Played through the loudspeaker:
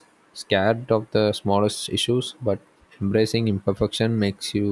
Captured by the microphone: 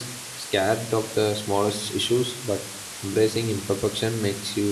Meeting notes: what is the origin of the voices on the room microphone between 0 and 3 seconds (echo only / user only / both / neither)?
echo only